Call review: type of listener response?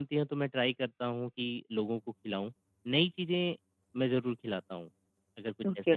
taking over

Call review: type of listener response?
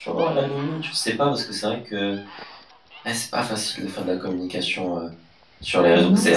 taking over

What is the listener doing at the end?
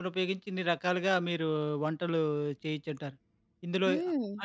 listening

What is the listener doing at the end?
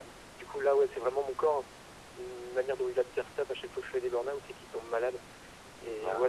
listening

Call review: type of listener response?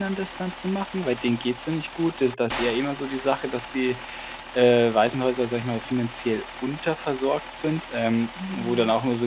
listening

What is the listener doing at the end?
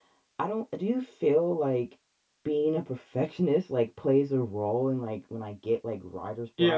taking over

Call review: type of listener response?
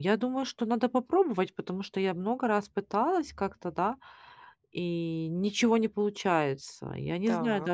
listening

